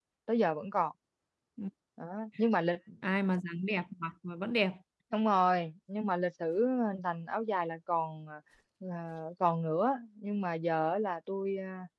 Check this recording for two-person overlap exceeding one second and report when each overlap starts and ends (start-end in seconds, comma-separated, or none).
none